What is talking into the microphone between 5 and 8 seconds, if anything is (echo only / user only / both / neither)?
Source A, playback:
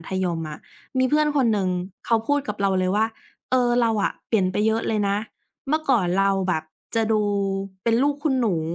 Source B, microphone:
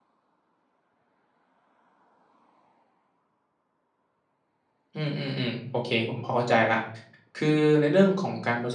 user only